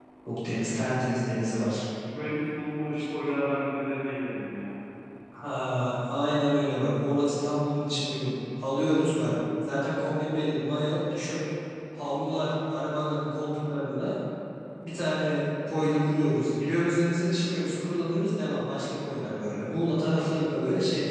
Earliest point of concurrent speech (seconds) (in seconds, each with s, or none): none